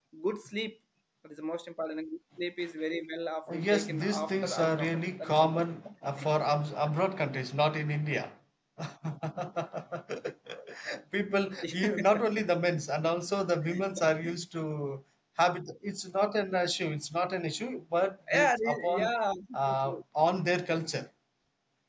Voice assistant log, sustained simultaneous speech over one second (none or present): present